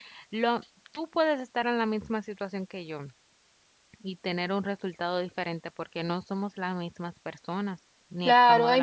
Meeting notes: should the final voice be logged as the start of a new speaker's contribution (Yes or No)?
Yes